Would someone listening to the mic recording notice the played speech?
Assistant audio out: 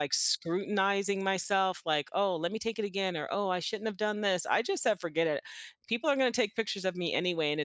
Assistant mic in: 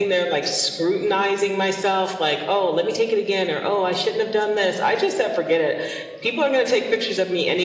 Yes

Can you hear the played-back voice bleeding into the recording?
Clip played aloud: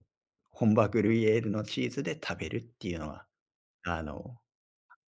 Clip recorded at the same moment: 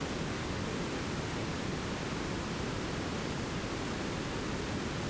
No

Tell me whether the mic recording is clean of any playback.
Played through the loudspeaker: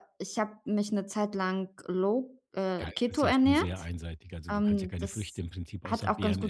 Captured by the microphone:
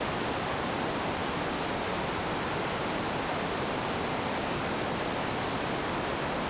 Yes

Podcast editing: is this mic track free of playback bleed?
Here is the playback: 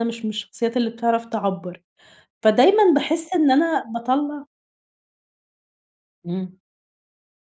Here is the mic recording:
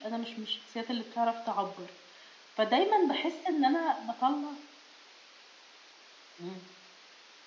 No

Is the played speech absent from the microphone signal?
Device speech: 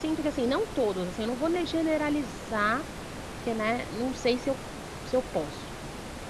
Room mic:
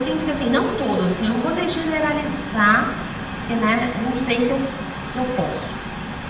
No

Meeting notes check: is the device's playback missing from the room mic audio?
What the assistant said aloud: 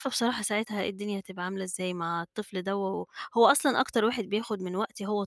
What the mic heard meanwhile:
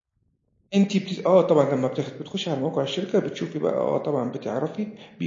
Yes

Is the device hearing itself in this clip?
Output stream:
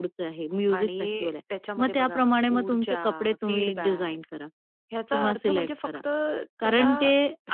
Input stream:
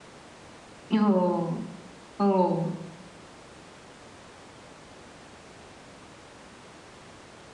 No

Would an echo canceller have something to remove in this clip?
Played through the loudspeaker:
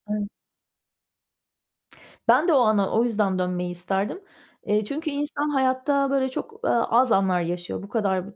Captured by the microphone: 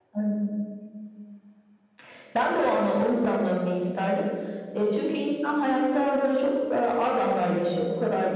Yes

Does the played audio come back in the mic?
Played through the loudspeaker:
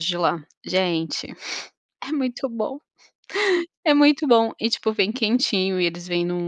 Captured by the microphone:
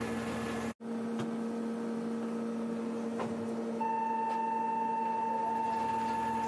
No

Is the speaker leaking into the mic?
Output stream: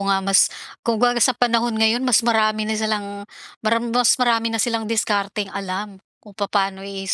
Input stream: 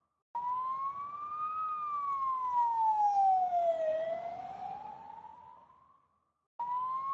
No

